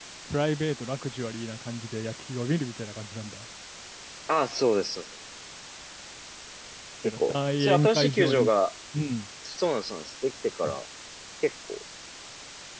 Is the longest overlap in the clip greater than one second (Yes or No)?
Yes